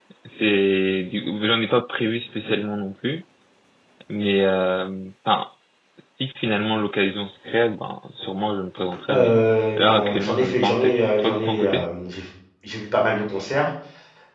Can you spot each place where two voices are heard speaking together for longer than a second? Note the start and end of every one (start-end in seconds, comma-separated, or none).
9.8-11.8